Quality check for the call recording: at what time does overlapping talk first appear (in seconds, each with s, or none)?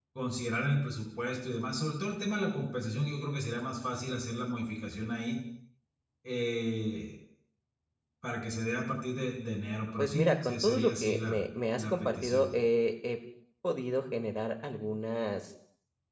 10.0 s